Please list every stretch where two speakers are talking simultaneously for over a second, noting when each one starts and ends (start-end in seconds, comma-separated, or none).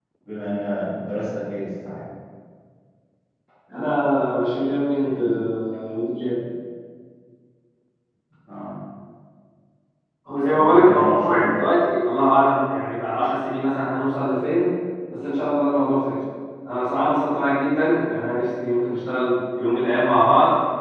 10.5-11.9